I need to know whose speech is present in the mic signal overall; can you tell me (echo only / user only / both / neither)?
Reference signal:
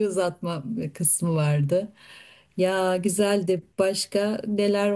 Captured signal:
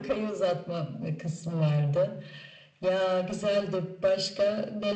echo only